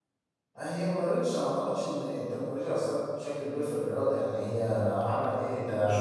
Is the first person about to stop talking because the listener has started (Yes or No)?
Yes